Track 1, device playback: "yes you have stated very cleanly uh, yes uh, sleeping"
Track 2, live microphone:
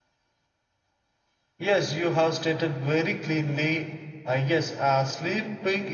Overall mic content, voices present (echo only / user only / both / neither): echo only